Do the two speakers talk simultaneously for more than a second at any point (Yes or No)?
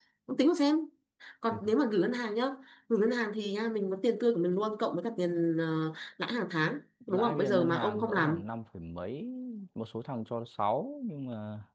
Yes